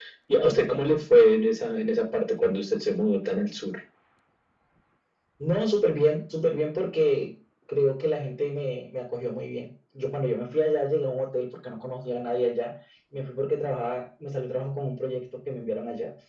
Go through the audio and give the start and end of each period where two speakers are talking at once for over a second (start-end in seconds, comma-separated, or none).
none